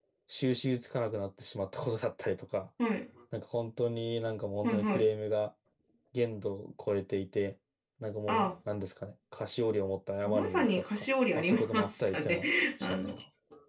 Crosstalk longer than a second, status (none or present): present